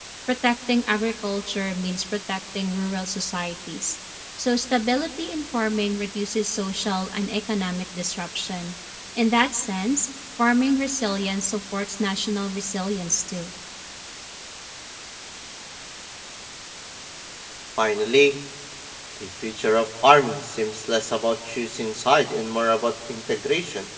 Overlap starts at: none

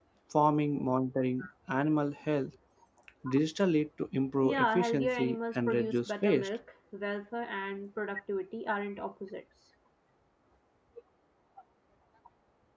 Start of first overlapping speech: 4.4 s

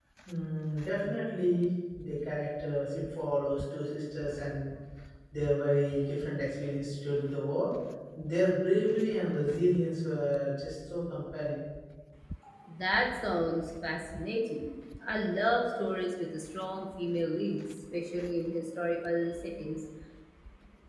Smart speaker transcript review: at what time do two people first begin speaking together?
none

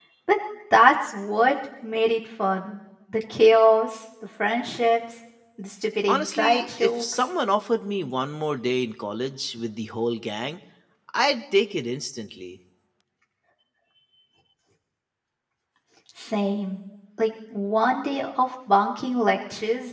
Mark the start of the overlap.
6.1 s

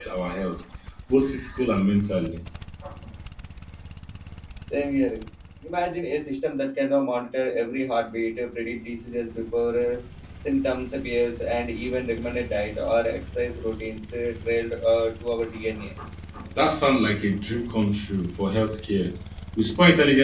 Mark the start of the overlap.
none

